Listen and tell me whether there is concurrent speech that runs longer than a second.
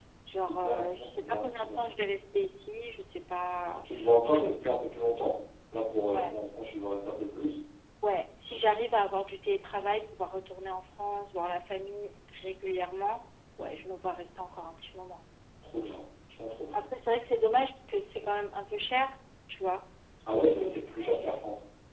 Yes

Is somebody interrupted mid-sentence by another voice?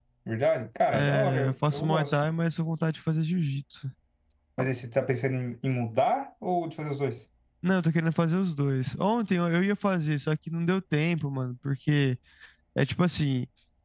Yes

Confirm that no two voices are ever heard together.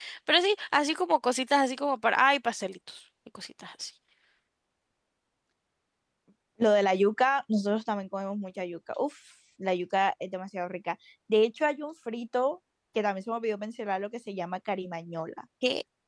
Yes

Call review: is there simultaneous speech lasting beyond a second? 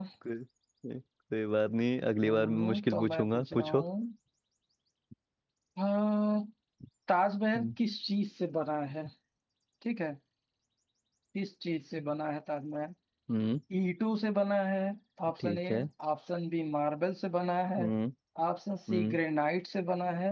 Yes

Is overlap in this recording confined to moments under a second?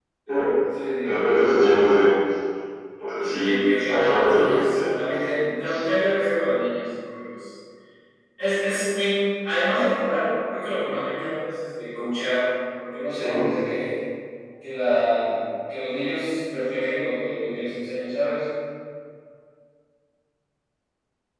No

